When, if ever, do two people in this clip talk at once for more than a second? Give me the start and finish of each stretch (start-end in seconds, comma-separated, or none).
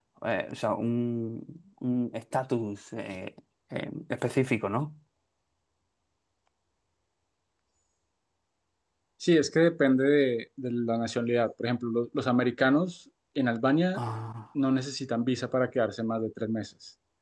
none